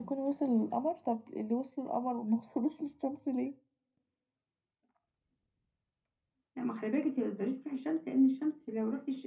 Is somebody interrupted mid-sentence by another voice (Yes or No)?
No